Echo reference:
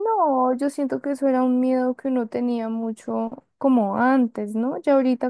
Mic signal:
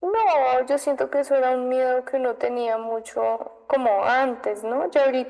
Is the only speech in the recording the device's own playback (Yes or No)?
Yes